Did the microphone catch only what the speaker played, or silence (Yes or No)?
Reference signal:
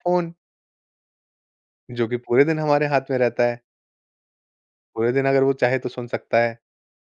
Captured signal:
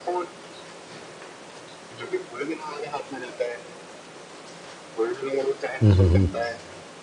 No